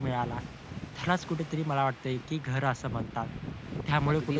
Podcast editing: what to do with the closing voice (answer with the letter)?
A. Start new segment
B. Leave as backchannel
B